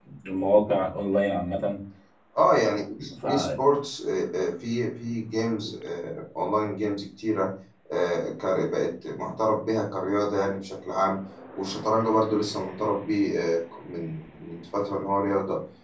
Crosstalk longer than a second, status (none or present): none